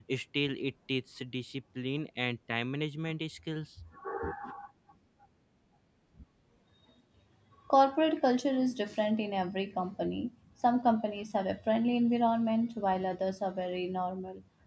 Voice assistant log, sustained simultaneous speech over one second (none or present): none